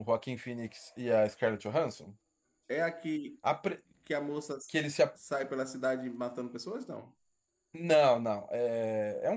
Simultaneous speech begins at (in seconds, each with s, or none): none